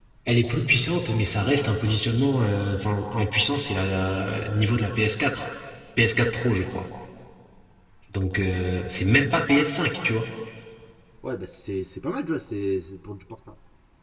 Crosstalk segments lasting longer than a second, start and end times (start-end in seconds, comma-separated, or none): none